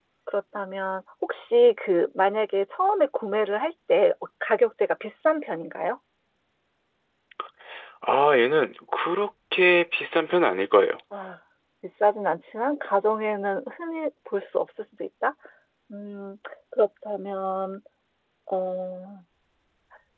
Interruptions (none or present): none